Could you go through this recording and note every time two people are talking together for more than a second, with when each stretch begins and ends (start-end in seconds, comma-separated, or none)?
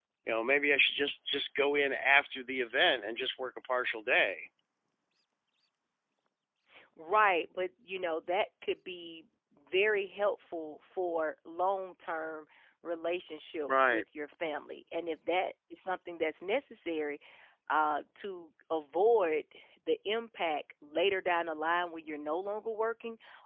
none